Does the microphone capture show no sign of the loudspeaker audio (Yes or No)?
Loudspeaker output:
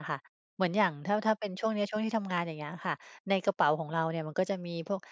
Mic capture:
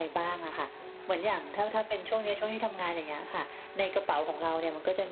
No